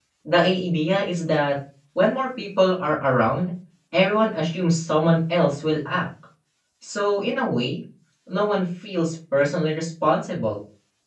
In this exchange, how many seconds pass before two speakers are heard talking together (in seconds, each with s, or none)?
none